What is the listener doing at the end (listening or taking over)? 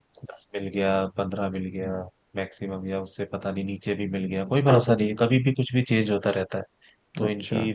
listening